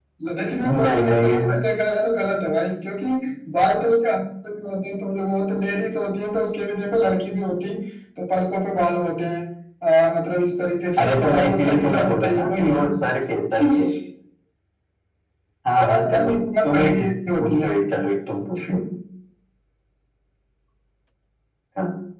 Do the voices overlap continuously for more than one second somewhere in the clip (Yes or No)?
Yes